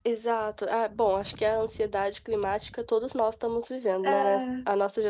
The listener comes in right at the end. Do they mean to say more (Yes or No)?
No